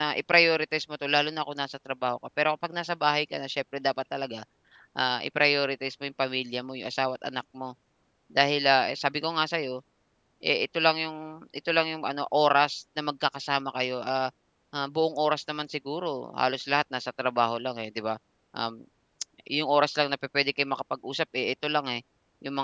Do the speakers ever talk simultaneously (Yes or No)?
No